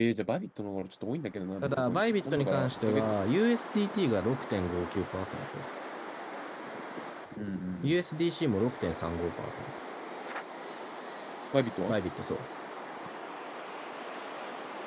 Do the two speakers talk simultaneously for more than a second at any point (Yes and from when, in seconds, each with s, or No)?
Yes, from 1.6 s